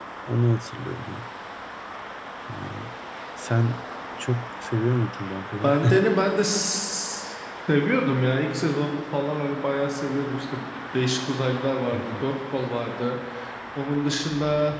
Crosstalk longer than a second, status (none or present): none